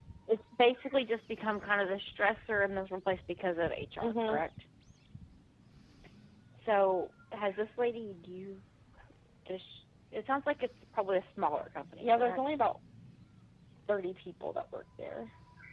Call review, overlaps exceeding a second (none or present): none